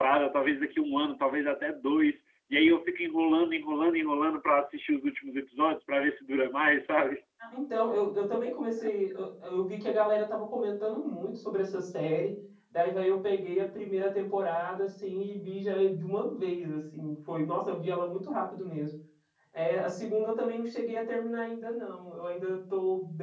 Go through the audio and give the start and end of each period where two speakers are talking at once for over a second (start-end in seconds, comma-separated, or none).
none